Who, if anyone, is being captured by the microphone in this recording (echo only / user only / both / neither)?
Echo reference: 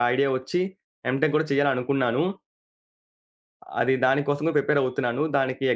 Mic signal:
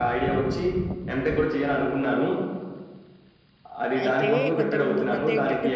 both